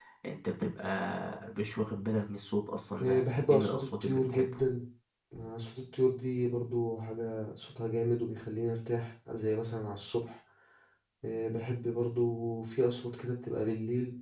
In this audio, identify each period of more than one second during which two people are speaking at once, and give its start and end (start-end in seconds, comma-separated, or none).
3.0-4.5